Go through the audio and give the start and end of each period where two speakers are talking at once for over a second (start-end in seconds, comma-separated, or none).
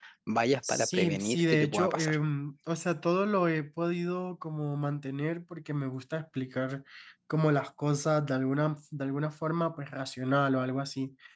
0.7-2.2